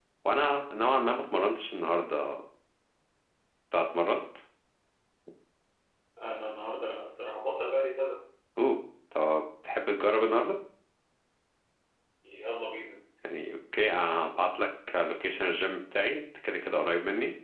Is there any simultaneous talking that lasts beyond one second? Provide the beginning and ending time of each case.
none

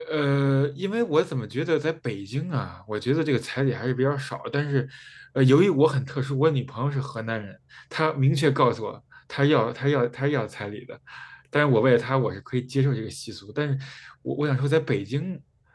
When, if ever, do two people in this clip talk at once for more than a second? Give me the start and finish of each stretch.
none

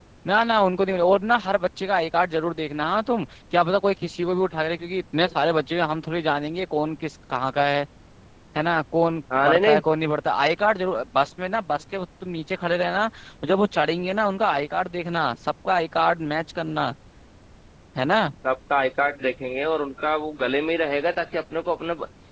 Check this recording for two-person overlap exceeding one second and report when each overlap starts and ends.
none

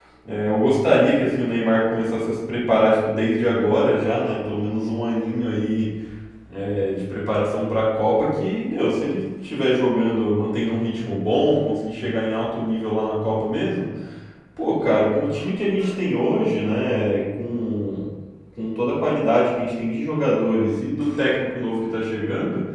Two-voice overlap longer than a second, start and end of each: none

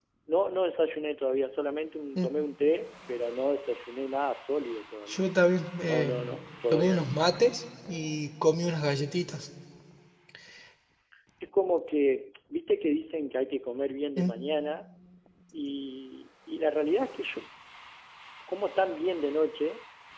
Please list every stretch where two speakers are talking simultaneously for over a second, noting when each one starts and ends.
none

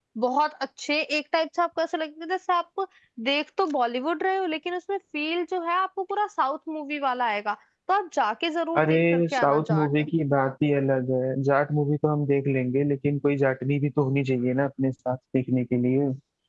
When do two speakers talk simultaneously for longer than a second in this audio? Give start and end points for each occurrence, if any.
8.8-10.0

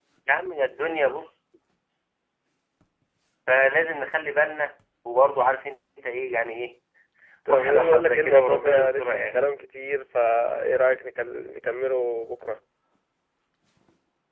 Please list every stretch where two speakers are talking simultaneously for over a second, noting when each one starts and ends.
7.5-9.4

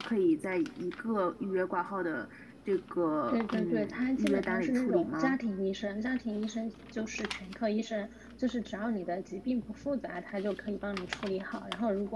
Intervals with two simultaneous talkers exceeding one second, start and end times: 3.3-5.4

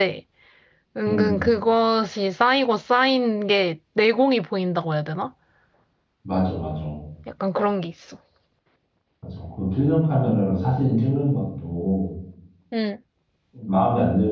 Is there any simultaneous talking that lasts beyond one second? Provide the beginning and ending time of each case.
none

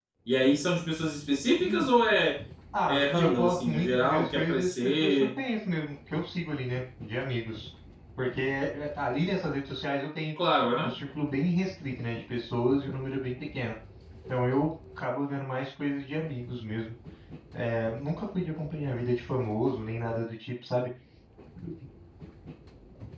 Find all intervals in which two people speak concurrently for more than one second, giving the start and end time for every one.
2.9-5.3

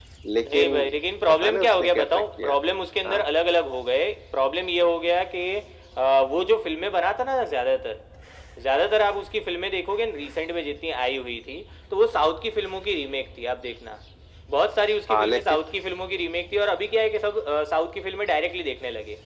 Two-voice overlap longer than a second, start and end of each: 1.3-2.5

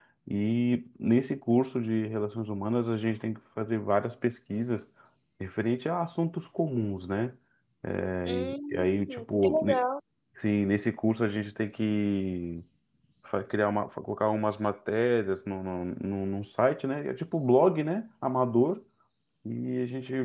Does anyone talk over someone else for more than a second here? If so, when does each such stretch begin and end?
8.2-9.8

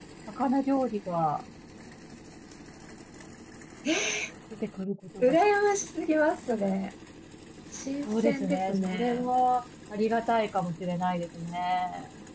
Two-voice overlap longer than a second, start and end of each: 8.1-9.3

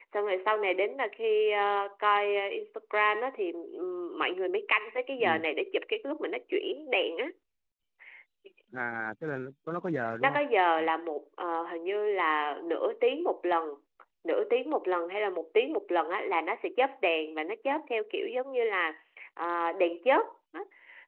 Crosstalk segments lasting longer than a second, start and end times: none

